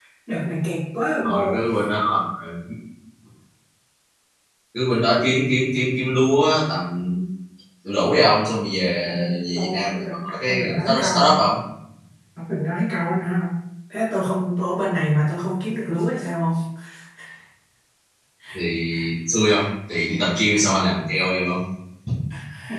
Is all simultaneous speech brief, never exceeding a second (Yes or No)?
No